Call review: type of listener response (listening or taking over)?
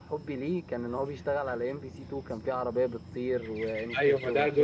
taking over